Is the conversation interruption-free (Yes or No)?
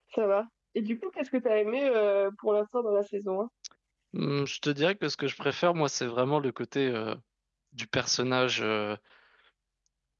Yes